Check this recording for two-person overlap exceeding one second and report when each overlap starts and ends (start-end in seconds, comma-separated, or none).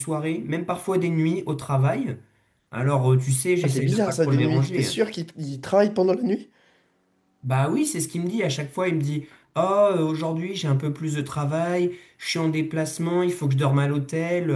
3.6-5.0